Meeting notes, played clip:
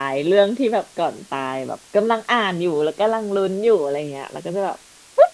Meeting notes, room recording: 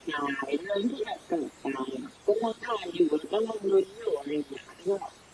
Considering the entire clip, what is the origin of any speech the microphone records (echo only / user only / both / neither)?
echo only